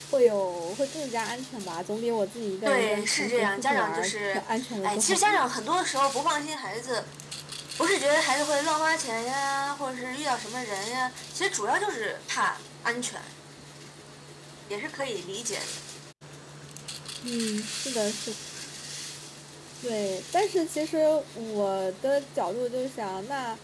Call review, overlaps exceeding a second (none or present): present